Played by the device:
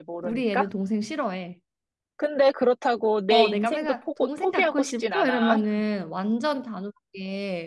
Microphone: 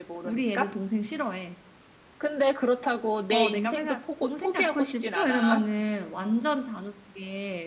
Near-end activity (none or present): none